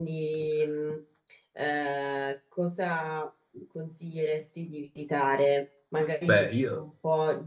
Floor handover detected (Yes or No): No